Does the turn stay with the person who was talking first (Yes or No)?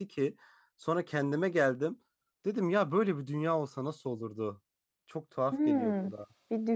No